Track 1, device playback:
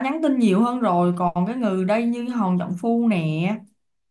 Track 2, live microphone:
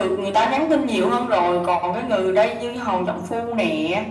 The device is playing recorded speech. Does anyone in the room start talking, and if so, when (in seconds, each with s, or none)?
none